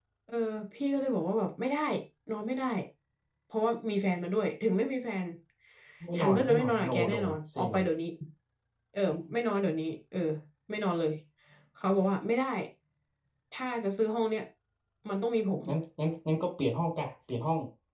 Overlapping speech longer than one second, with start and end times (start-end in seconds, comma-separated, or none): 6.2-7.8